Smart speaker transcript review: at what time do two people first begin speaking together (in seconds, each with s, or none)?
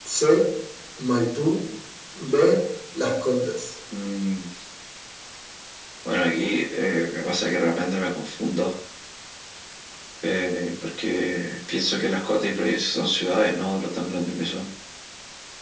none